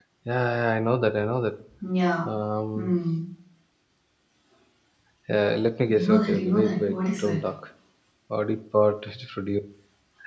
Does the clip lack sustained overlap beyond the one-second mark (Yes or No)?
No